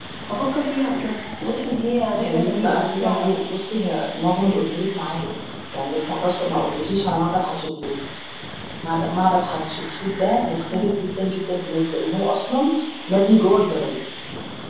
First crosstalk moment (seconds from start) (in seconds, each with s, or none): 2.1 s